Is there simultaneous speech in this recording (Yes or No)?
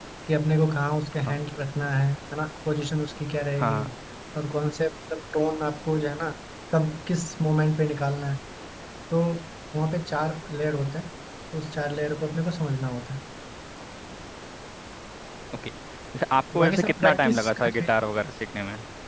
Yes